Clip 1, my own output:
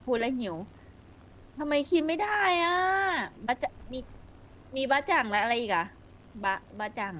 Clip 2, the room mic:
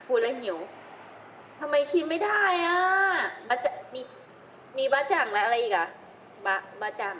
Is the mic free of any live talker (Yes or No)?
Yes